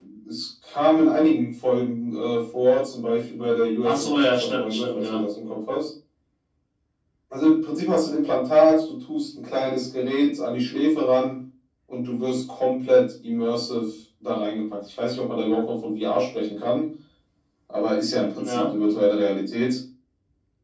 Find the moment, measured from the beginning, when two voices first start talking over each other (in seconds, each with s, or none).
3.8 s